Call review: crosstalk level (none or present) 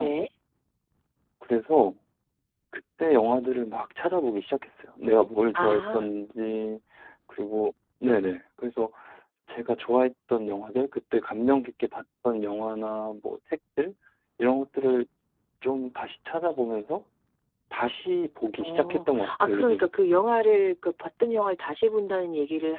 present